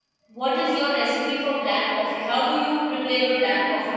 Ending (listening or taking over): taking over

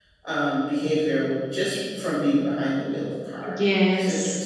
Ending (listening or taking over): taking over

